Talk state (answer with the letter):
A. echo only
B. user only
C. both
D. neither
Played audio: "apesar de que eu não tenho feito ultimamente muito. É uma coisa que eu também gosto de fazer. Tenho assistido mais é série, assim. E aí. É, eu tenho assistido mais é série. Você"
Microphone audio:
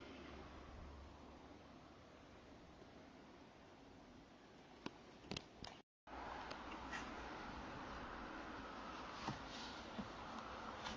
D